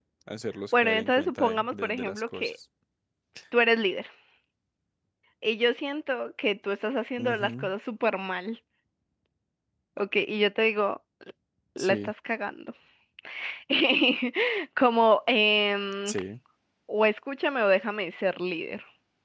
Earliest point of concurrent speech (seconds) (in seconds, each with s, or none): 0.8 s